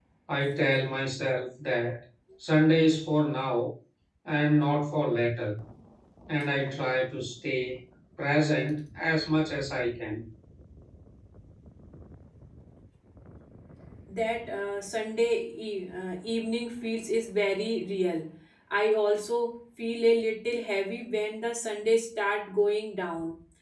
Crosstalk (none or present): none